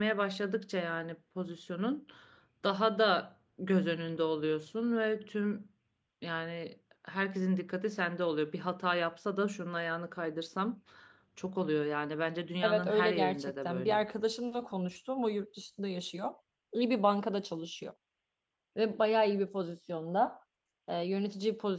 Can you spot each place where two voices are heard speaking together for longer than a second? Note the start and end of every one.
12.6-14.0

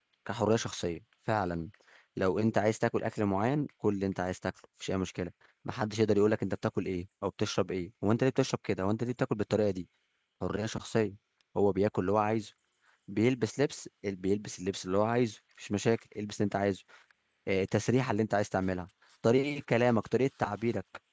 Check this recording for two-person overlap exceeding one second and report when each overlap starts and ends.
none

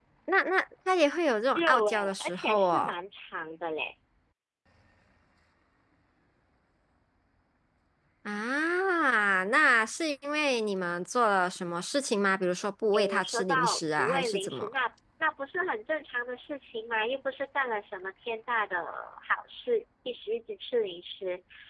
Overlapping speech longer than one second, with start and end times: 1.5-2.9, 12.9-14.7

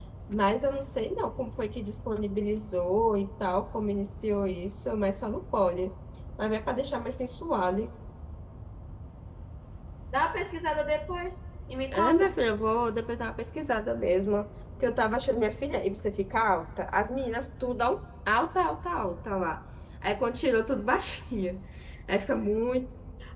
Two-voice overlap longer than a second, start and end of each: none

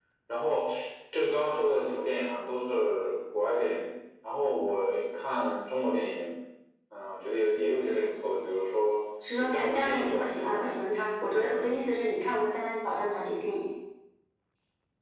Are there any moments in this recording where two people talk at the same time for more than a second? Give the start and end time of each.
9.4-10.8

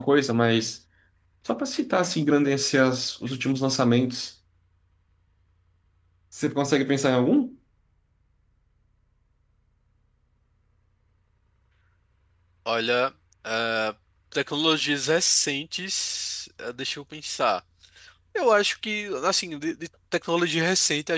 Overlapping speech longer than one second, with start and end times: none

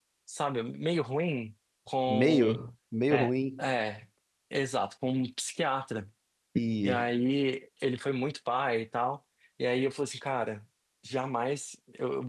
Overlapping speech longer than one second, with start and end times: none

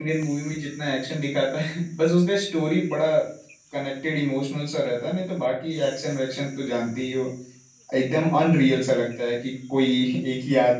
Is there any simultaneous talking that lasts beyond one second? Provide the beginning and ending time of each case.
none

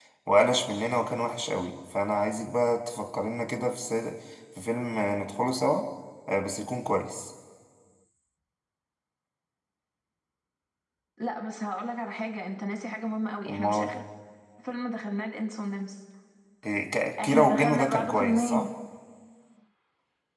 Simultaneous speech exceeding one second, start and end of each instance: 17.2-18.7

